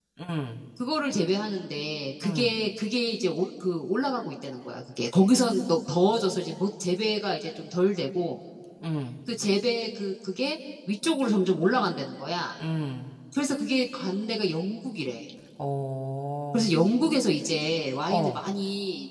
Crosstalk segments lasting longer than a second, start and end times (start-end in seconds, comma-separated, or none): none